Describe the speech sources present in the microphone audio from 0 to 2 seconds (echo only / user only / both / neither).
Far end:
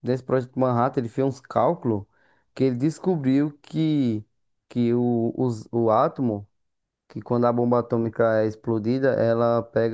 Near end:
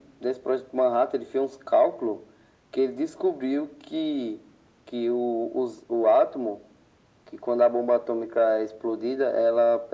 echo only